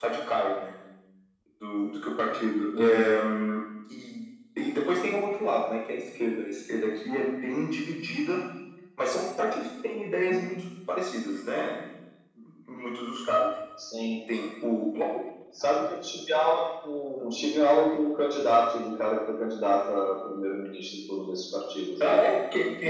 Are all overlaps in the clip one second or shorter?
Yes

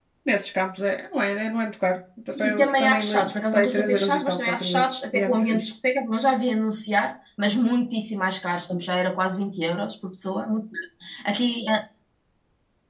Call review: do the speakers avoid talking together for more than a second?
No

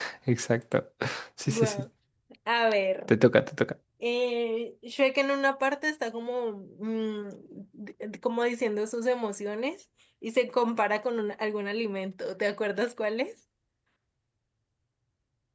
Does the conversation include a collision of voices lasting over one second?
No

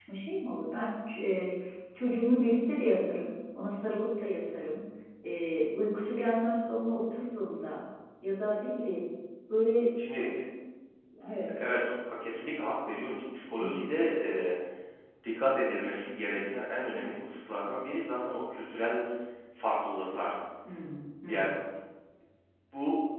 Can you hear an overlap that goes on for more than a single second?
No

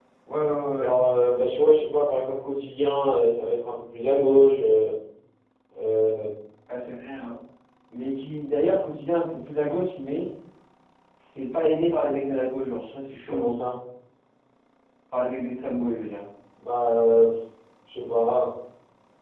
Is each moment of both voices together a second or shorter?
Yes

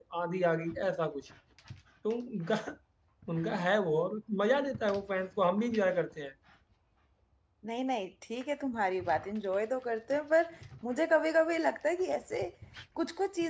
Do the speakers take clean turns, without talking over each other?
Yes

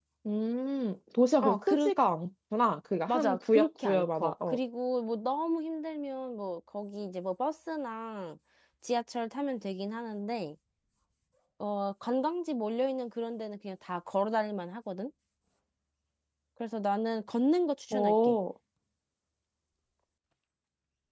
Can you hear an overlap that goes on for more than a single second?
Yes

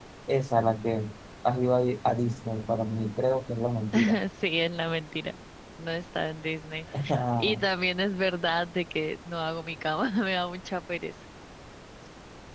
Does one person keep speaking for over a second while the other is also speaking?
No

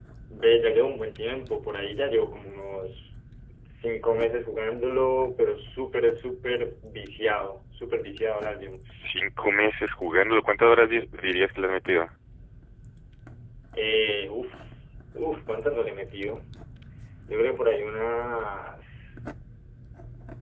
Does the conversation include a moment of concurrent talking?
No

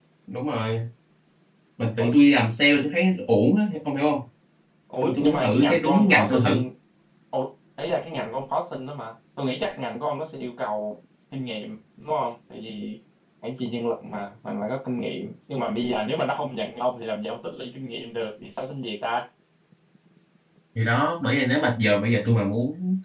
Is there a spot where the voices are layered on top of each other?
Yes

